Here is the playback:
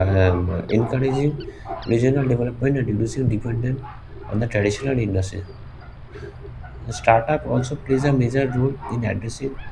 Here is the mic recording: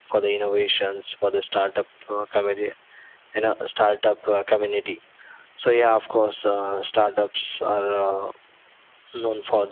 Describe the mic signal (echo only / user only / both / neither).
user only